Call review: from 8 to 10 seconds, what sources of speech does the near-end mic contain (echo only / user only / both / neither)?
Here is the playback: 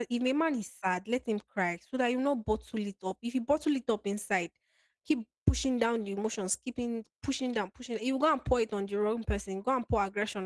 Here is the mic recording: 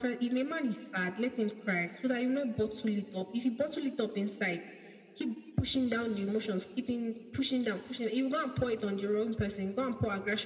echo only